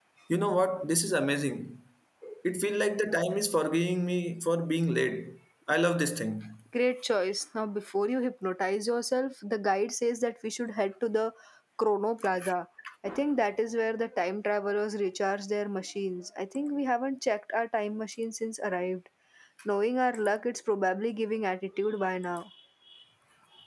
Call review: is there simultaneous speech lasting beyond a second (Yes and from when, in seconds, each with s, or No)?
No